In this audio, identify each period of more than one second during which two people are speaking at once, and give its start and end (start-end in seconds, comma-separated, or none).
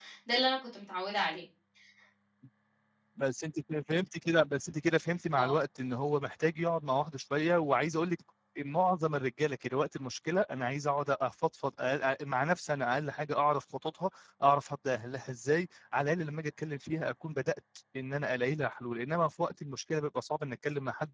none